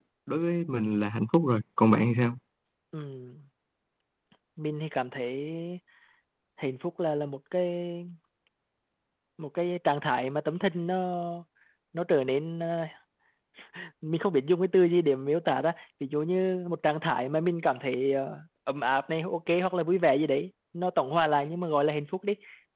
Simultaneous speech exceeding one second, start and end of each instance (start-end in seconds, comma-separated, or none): none